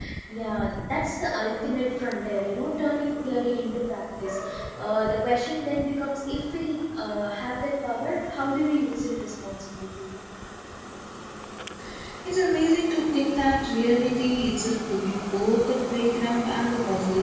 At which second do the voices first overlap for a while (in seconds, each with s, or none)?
none